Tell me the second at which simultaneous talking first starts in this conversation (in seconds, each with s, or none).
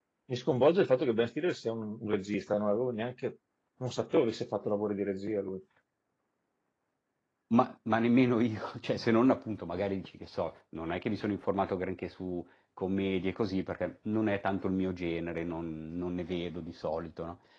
none